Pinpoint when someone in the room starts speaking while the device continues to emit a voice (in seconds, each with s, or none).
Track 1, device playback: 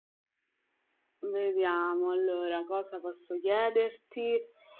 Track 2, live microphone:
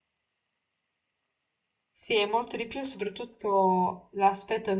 1.9 s